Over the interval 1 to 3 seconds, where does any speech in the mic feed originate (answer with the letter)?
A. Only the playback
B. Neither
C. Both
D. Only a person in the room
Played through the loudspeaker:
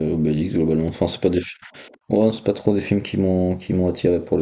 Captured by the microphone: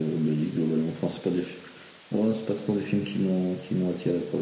A